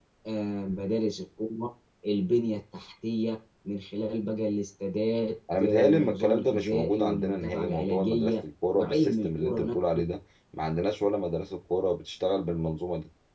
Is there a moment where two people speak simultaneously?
Yes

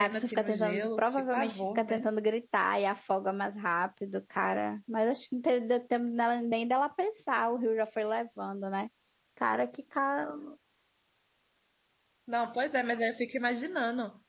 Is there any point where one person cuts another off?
Yes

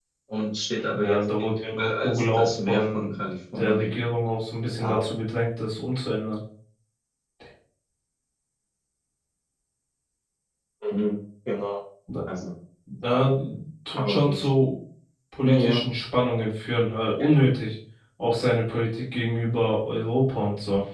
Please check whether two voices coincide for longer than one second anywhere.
Yes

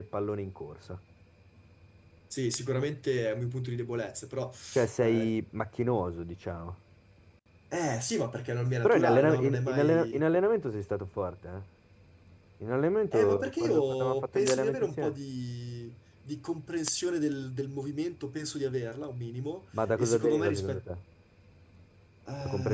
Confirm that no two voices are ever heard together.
No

